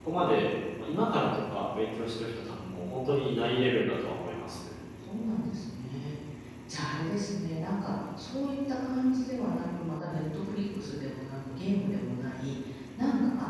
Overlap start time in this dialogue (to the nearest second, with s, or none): none